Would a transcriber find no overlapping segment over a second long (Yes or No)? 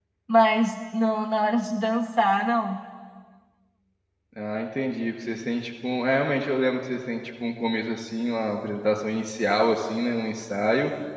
Yes